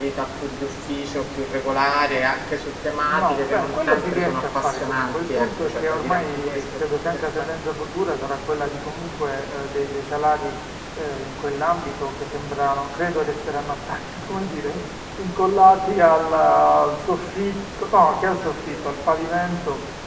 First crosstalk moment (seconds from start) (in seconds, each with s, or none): 3.0 s